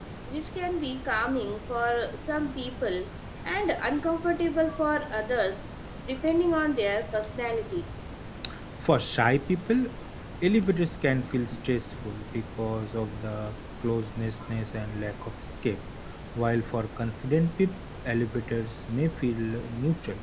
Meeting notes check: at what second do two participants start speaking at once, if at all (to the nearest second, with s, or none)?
none